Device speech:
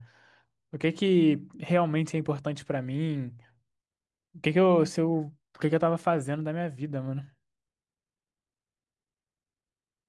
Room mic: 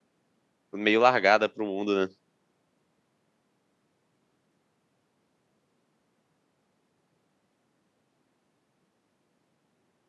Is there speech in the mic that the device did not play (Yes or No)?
Yes